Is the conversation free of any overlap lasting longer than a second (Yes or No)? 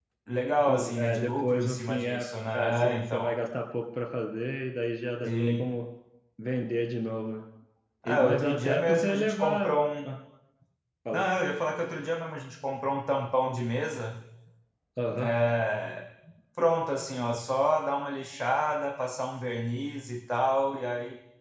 No